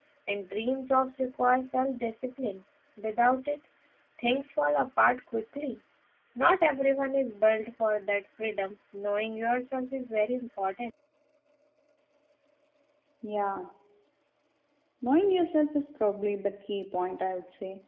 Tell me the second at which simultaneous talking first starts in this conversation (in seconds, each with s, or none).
none